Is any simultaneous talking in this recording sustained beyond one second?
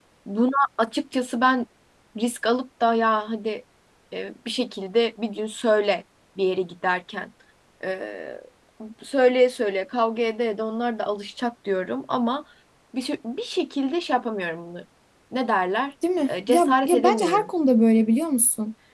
Yes, from 16.3 s

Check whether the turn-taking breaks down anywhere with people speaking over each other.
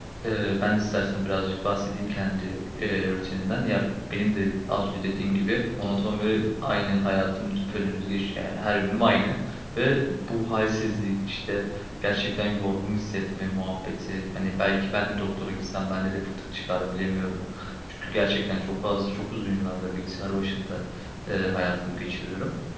No

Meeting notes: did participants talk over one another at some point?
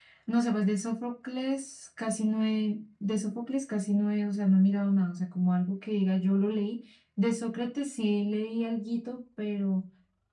No

